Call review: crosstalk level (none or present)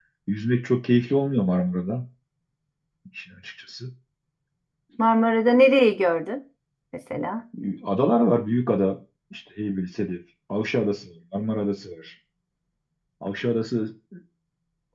none